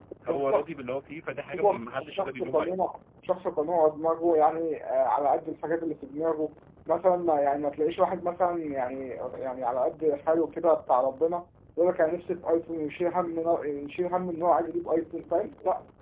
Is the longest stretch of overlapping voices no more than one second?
No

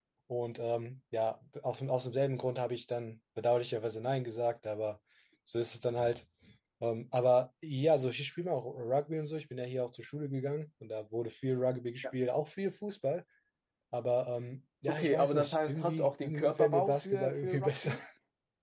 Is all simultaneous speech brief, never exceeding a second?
No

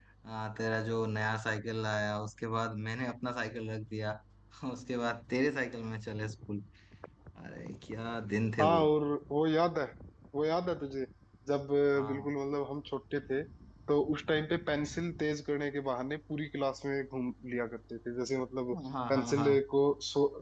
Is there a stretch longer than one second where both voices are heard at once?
No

